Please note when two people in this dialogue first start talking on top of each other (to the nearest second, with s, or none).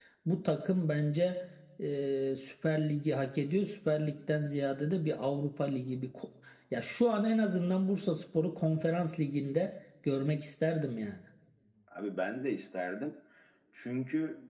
none